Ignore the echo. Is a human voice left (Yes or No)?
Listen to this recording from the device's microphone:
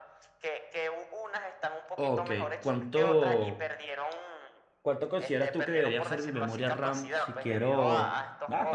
Yes